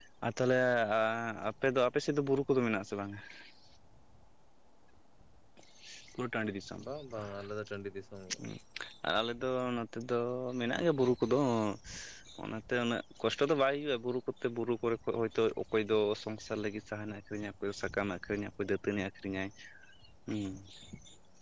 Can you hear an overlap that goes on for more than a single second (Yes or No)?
No